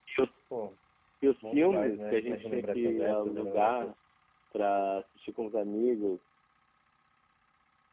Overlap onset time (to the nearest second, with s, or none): 1 s